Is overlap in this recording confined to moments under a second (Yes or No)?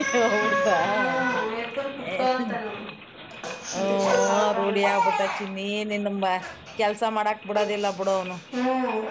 No